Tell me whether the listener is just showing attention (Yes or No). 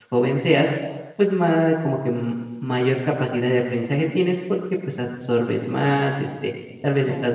Yes